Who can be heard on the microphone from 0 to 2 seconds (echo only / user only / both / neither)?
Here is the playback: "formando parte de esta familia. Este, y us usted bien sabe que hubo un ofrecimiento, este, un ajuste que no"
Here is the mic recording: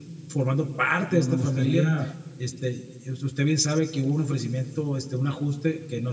both